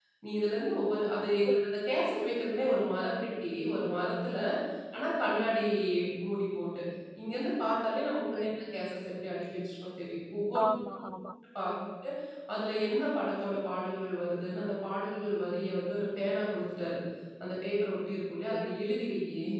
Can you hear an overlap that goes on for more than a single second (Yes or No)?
No